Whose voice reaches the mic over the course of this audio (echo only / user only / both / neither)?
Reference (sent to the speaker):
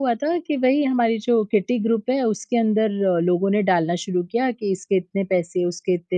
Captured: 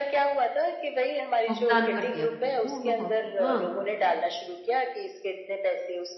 both